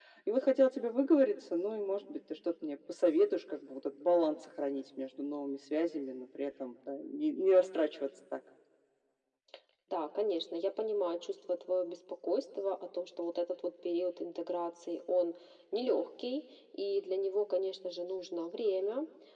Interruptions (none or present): none